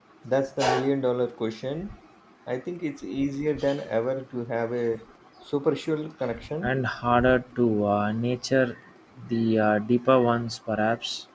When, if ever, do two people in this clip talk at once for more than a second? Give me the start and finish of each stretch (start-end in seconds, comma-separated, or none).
none